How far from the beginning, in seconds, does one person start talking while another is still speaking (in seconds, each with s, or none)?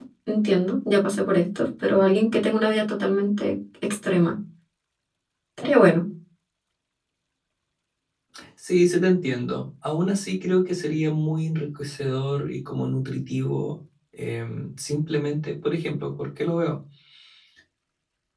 none